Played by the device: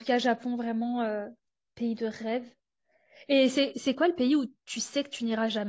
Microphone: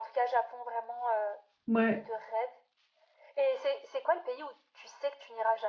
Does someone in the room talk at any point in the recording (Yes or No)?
Yes